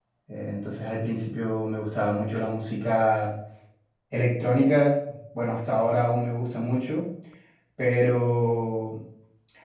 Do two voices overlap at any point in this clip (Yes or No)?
No